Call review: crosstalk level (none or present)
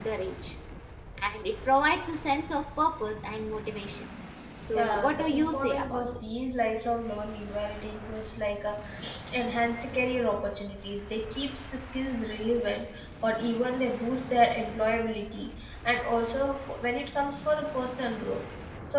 present